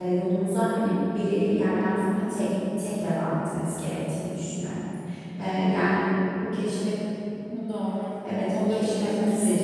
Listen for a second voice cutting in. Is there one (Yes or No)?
Yes